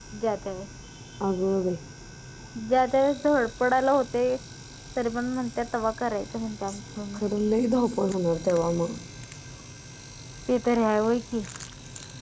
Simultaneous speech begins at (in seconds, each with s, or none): none